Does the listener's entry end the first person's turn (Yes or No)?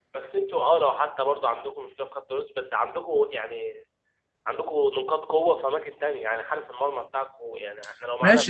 Yes